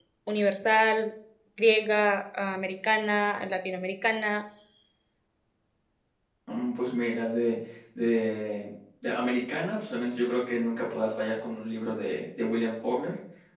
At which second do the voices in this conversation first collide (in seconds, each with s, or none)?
none